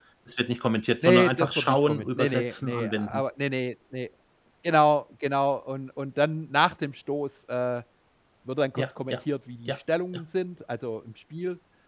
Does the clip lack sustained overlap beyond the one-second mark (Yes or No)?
No